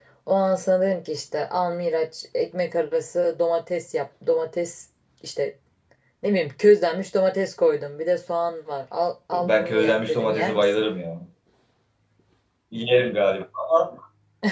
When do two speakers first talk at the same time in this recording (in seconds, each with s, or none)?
9.3 s